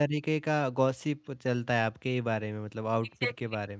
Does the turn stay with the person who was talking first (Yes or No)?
No